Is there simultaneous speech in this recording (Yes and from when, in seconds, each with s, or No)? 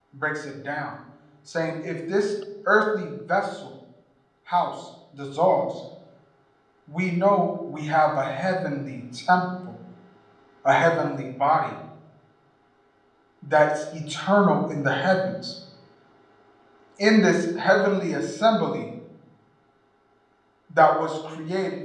No